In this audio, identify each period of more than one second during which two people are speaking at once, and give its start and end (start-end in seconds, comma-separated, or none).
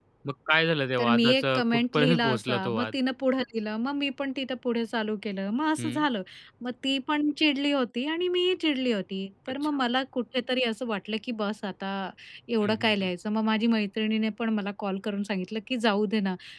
1.0-2.9